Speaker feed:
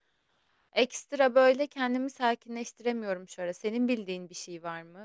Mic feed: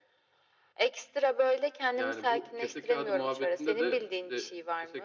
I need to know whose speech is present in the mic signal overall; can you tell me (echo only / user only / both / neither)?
both